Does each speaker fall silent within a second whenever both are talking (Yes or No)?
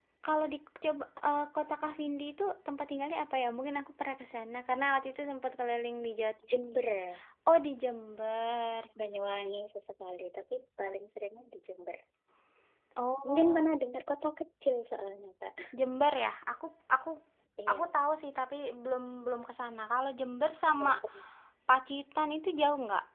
Yes